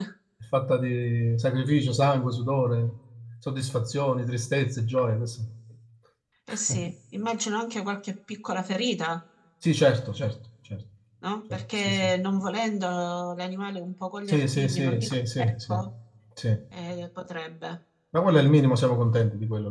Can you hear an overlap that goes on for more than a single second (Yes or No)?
Yes